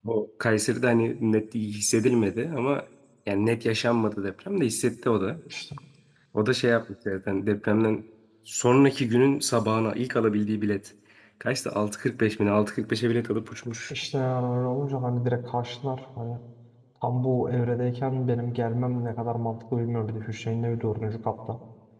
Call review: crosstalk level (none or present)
none